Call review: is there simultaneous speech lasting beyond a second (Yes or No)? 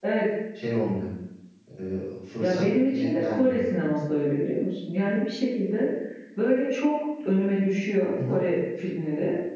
Yes